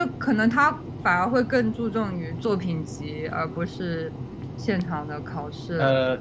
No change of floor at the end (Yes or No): No